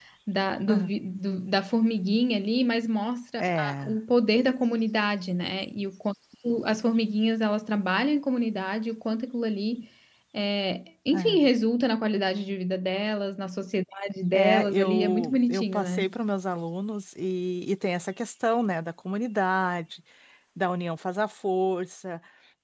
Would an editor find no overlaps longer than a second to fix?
No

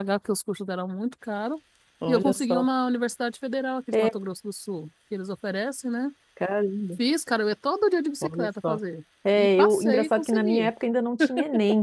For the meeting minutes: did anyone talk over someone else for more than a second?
Yes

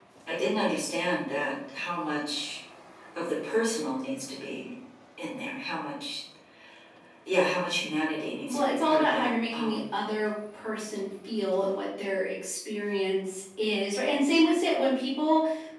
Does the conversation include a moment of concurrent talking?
Yes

